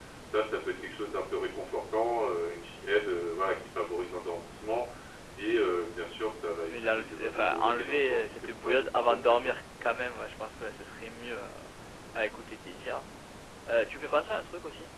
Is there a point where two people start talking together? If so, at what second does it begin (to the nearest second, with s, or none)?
7 s